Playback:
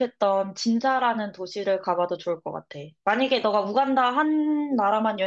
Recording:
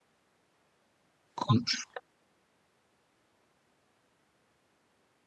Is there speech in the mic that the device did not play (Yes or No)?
Yes